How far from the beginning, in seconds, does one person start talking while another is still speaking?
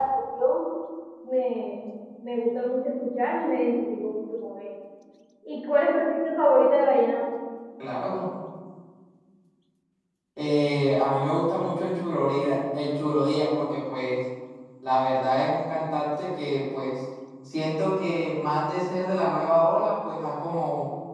none

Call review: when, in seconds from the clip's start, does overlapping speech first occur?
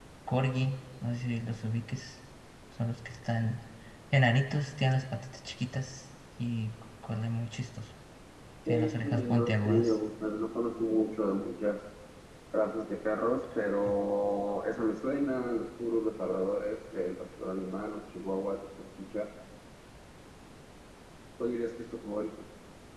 9 s

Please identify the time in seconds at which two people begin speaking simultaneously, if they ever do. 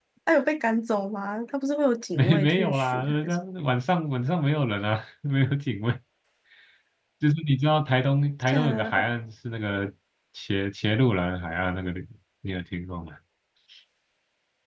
2 s

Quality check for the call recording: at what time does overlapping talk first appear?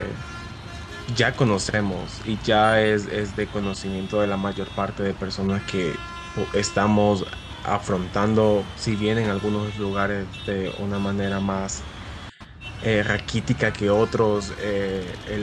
none

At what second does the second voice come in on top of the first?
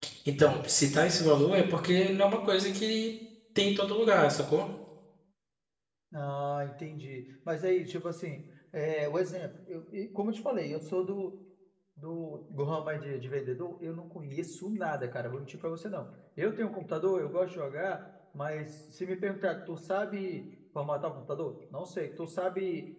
none

